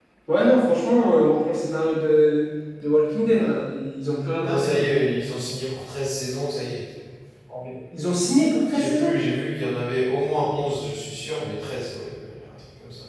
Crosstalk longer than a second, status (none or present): none